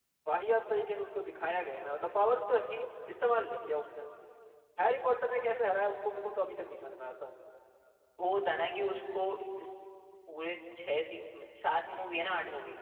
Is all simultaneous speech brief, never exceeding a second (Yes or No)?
Yes